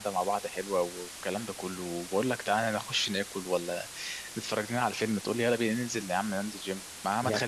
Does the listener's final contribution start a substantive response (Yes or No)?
No